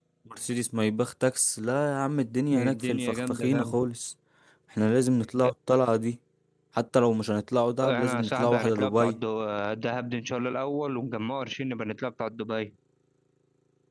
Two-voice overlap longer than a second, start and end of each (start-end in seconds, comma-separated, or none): 2.5-3.9, 7.9-9.2